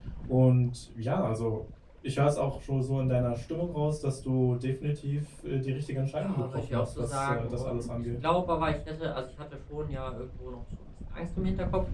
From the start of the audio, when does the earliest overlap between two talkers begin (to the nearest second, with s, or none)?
6 s